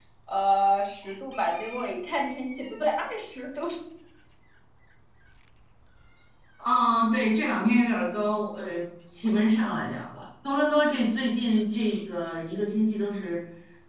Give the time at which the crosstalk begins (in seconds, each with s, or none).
none